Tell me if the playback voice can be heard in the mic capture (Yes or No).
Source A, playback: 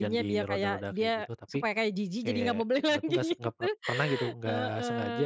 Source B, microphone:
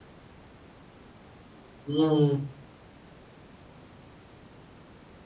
No